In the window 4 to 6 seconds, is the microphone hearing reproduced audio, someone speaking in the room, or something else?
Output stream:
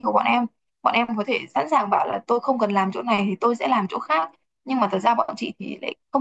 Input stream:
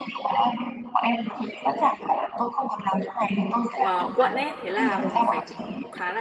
both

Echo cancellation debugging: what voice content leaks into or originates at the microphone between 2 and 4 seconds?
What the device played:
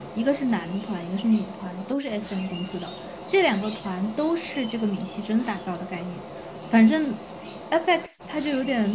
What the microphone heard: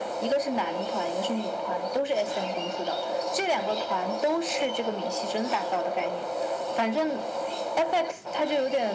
echo only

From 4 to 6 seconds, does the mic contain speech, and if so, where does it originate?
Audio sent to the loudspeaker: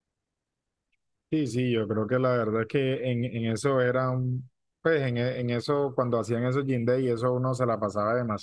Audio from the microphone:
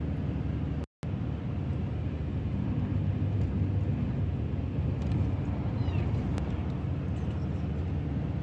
neither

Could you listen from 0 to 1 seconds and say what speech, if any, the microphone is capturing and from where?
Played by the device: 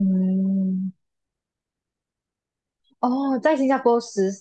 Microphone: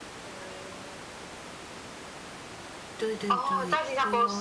echo only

